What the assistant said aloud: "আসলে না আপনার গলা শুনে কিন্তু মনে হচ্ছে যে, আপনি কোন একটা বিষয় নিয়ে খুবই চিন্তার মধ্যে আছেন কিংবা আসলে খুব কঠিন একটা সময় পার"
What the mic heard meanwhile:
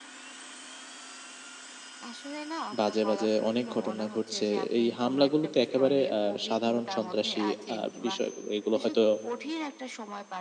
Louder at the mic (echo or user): user